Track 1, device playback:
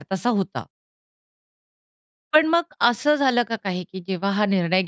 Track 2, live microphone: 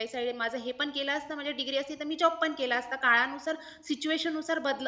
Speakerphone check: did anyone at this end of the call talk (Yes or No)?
Yes